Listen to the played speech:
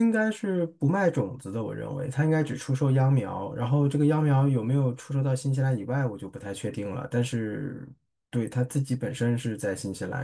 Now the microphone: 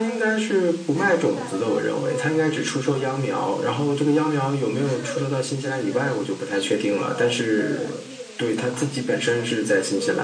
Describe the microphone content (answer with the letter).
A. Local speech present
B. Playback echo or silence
A